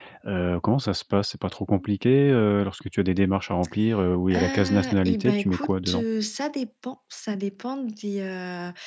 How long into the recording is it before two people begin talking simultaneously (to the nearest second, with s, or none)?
4 s